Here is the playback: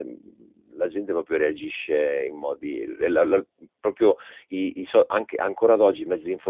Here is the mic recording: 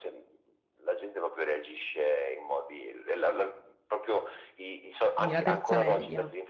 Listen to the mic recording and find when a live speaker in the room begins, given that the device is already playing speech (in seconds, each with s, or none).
5.2 s